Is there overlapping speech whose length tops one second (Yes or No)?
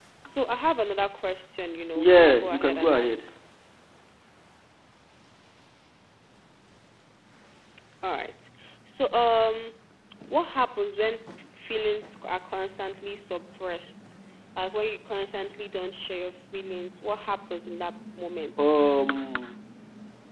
Yes